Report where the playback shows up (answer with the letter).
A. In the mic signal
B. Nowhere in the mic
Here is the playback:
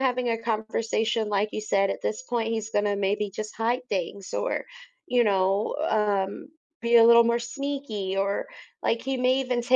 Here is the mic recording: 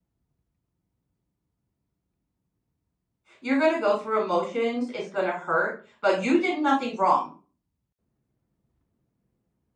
B